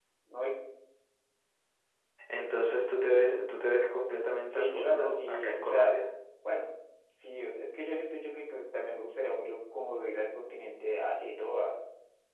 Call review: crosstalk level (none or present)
present